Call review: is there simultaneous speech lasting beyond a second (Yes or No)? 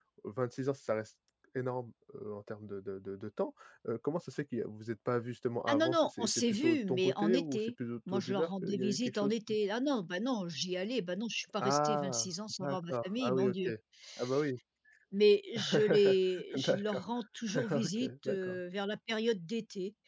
Yes